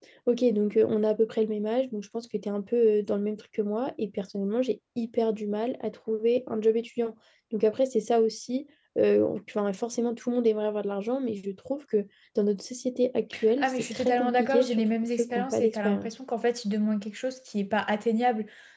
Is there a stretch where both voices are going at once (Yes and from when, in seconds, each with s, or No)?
Yes, from 13.3 s